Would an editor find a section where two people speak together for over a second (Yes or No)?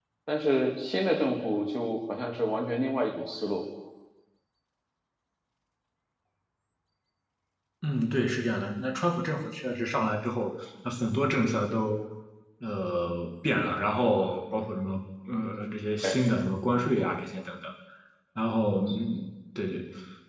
No